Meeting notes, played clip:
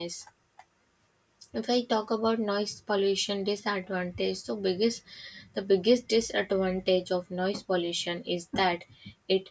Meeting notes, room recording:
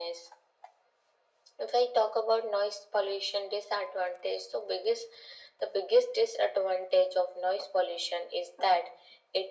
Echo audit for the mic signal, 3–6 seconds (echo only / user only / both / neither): echo only